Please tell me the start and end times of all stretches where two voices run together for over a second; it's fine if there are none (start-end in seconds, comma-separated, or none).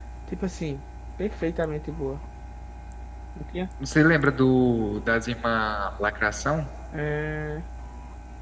none